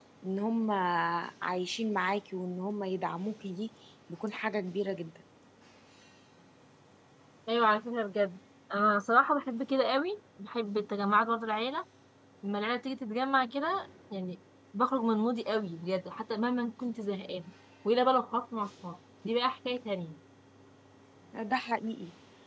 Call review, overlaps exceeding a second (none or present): none